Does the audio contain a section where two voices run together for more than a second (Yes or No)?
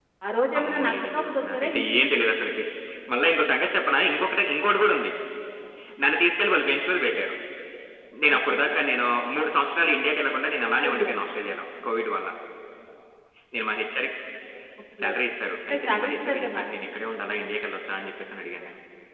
Yes